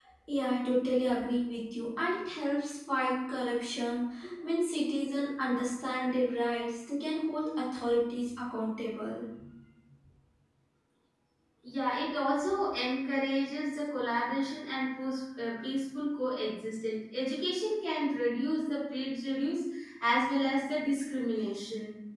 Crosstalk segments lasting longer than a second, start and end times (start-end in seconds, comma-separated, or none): none